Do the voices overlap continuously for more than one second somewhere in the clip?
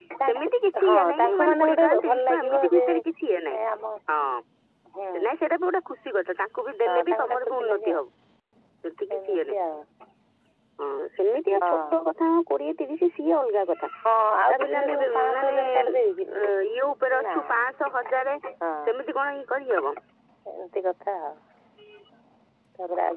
Yes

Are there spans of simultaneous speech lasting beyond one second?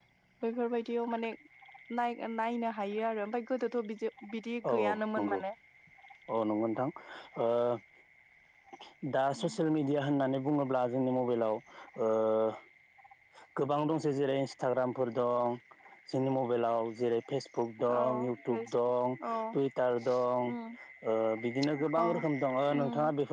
No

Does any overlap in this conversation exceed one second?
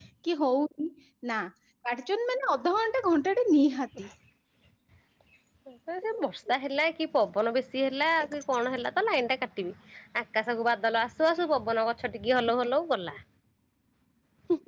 No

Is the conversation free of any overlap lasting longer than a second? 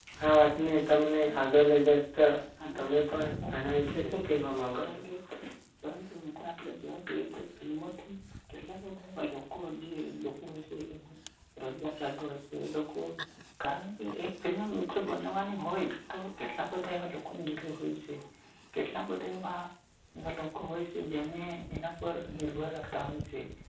No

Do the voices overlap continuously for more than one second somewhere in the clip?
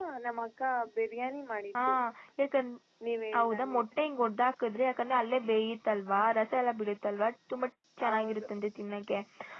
No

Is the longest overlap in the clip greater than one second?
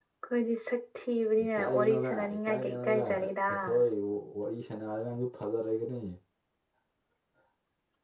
Yes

